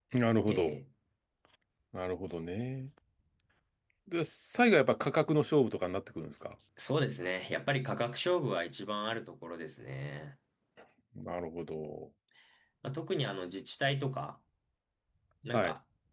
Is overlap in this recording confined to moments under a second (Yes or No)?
Yes